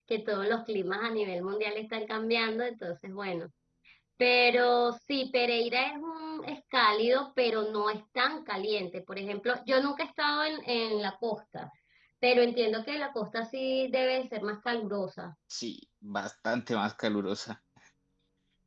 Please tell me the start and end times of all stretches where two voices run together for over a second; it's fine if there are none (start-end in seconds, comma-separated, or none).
none